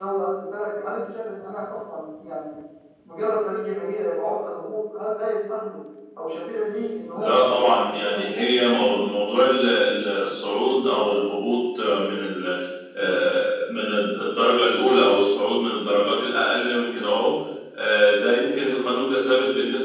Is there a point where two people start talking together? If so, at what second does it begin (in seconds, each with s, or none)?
7.1 s